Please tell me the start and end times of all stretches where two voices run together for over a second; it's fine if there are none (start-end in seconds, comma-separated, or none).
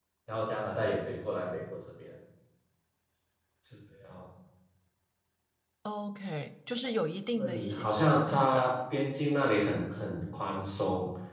7.3-8.7